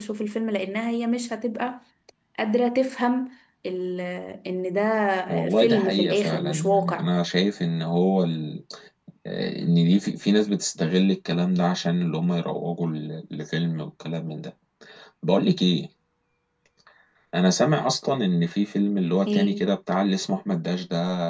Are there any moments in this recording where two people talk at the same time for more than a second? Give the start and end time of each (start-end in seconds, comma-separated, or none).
5.3-7.1